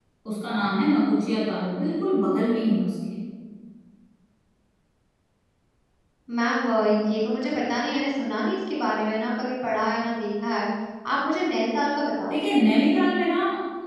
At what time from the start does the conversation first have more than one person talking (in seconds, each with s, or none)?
none